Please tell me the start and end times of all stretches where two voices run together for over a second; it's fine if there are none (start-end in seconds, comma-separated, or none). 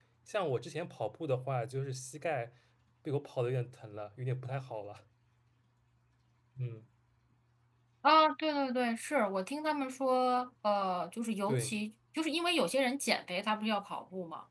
none